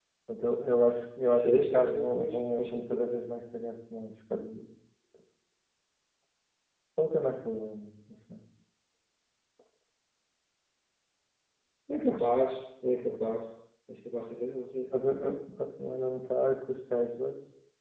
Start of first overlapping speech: 1 s

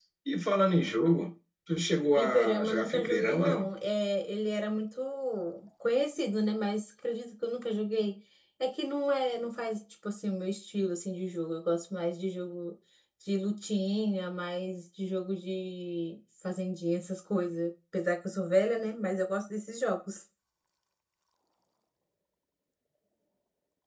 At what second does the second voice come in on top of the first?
2 s

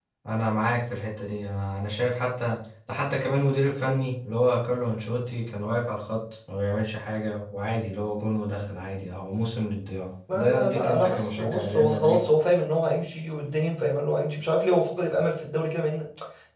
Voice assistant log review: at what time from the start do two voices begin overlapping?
10 s

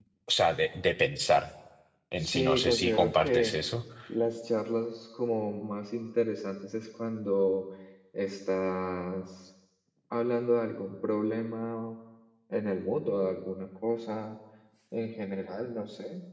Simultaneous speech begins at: 2 s

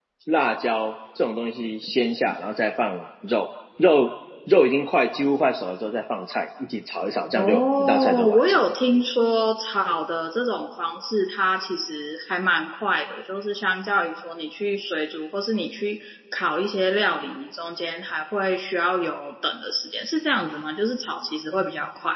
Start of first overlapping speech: 7 s

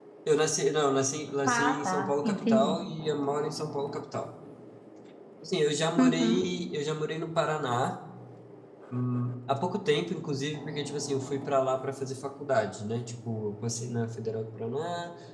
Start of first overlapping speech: 1 s

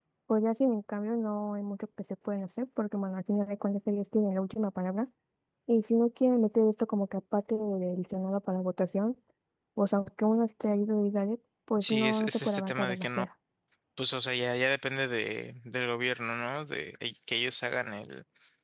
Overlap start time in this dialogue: 12 s

